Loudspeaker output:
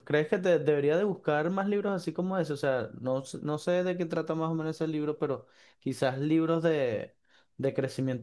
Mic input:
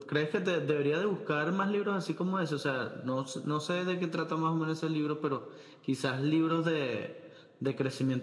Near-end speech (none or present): none